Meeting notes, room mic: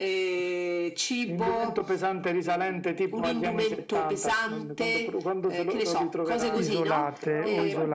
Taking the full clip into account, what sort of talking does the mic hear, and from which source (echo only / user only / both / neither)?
both